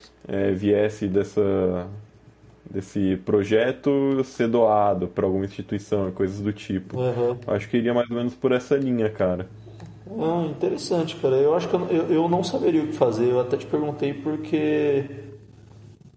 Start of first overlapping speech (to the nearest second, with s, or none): none